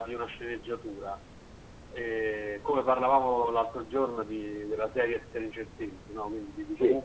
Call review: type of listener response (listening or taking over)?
listening